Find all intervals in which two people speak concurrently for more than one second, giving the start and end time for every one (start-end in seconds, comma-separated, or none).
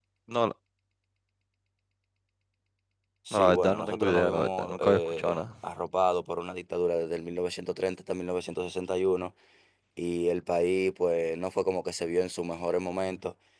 3.3-5.4